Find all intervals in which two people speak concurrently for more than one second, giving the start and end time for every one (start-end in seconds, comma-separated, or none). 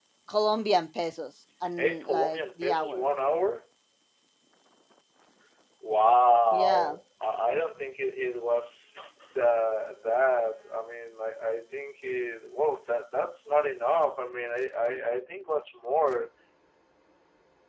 1.8-3.1